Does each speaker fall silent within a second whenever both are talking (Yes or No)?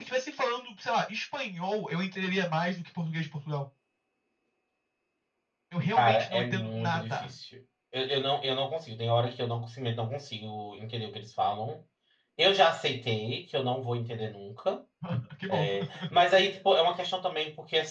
No